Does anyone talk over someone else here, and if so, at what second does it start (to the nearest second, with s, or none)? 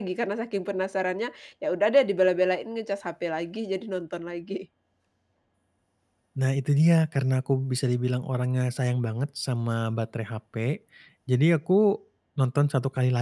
none